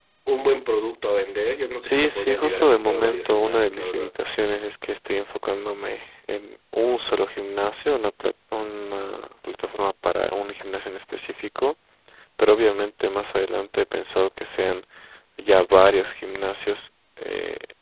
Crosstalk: present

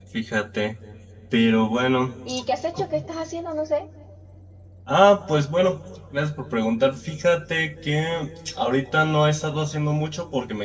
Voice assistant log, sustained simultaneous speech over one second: none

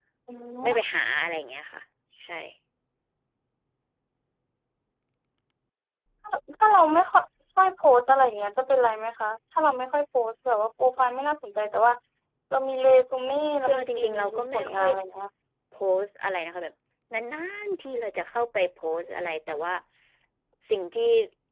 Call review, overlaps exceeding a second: present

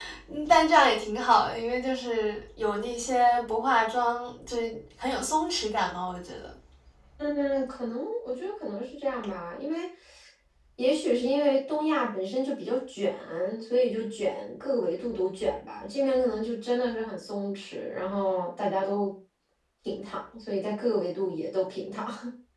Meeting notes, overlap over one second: none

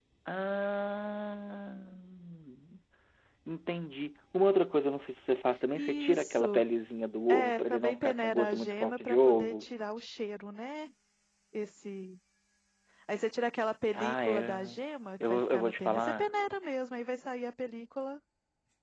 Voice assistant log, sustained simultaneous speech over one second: present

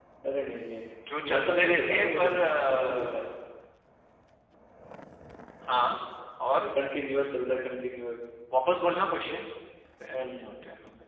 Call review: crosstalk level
present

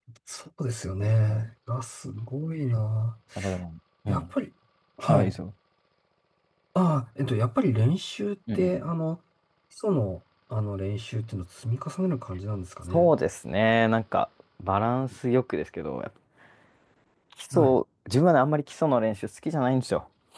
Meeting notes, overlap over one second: none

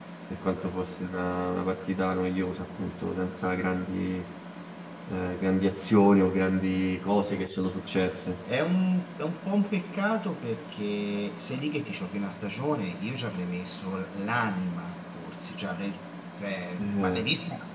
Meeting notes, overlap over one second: none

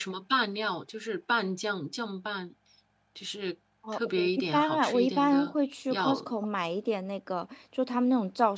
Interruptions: present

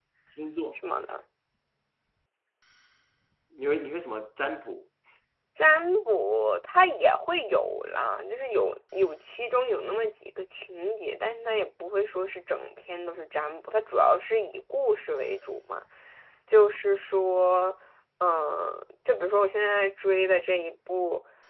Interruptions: none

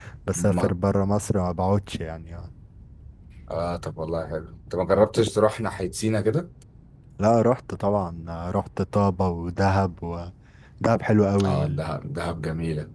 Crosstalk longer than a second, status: none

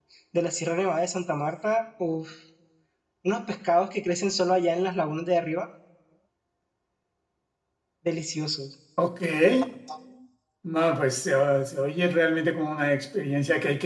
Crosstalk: none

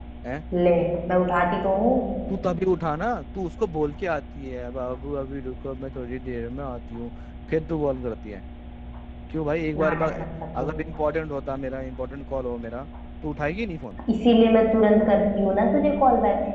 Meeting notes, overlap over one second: none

